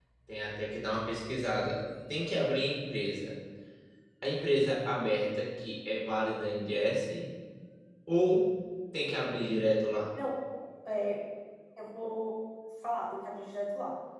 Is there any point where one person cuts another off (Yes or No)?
No